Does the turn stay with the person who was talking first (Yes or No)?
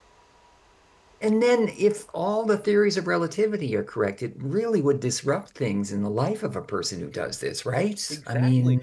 No